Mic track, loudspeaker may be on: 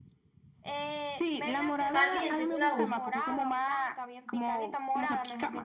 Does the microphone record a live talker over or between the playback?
Yes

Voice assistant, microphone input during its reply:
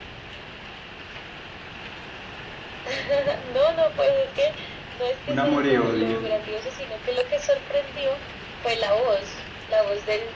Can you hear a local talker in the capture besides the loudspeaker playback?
Yes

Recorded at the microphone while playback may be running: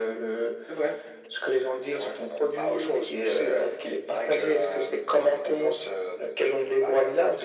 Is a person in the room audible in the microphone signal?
No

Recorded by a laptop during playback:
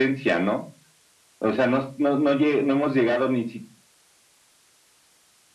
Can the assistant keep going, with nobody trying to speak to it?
Yes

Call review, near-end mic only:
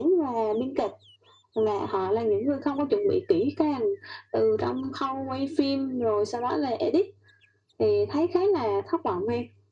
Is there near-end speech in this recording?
No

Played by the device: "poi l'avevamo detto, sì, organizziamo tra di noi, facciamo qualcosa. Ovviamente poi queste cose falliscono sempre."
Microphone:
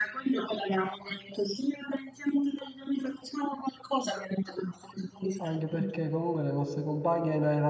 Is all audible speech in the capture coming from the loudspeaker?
No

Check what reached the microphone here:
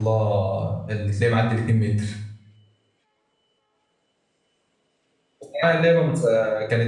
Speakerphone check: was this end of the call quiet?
No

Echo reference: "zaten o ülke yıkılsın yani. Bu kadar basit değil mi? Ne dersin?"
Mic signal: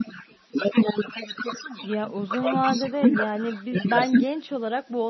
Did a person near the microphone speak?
Yes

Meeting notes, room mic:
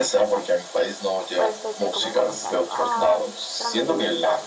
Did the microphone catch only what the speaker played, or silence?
No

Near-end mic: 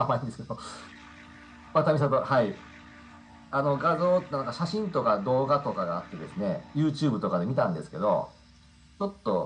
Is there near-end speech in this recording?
No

